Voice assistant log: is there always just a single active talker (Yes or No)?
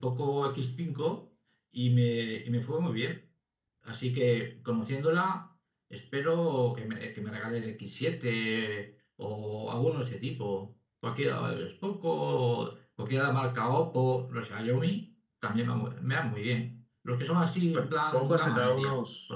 No